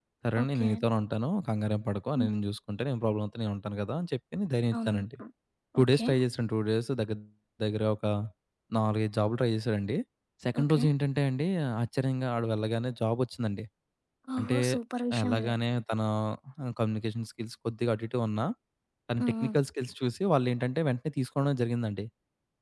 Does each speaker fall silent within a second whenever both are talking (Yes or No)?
Yes